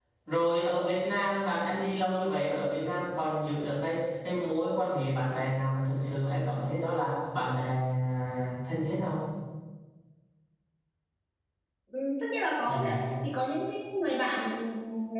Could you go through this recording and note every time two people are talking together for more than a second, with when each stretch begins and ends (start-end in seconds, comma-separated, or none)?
none